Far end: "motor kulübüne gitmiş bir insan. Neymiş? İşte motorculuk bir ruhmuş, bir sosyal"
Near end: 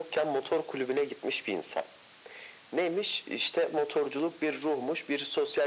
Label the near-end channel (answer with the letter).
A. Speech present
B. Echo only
B